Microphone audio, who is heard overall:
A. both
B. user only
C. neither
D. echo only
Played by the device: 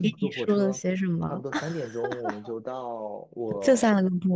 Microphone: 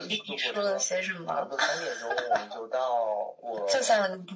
D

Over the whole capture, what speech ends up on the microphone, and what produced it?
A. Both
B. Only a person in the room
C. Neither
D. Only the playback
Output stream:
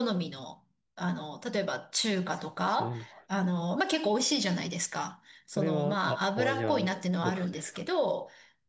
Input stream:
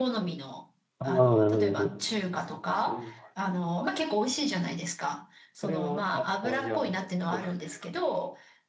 A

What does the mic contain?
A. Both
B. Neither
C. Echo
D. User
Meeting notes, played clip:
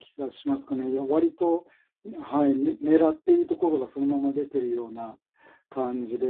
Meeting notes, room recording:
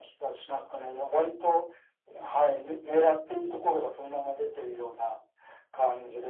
C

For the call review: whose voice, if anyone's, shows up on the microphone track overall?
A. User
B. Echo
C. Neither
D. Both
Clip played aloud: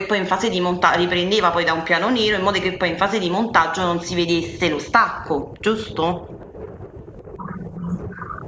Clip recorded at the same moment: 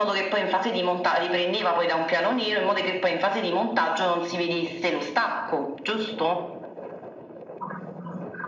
B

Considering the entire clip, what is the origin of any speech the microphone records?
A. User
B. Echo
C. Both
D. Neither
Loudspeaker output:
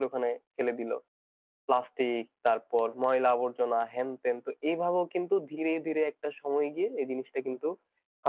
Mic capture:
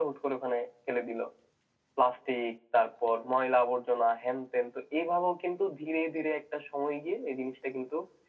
B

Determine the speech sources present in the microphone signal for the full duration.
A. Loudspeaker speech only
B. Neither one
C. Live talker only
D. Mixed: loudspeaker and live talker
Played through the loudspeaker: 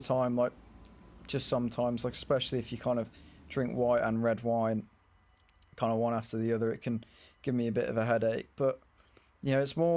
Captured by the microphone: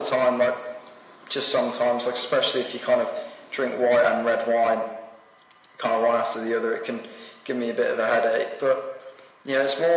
A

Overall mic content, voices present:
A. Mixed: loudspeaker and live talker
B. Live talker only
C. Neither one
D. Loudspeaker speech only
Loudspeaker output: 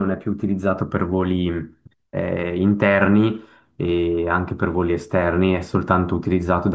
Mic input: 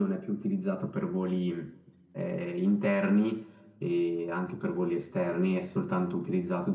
D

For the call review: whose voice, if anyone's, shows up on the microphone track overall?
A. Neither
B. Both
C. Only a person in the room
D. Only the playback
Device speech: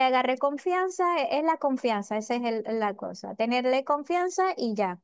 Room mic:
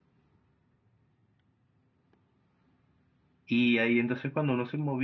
C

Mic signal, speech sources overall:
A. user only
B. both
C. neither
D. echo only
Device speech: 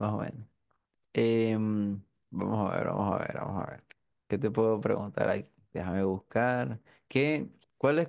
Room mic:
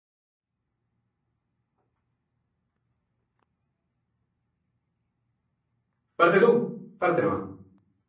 A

